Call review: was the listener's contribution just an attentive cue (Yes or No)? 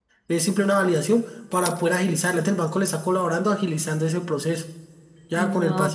No